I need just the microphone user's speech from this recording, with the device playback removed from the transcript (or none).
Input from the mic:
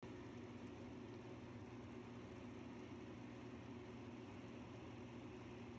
none